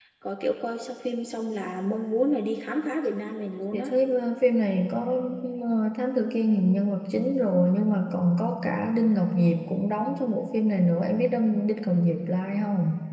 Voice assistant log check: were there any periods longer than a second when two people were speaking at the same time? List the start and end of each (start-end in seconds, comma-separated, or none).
none